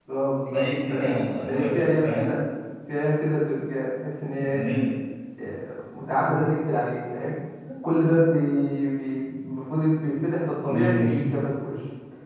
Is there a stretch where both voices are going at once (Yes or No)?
Yes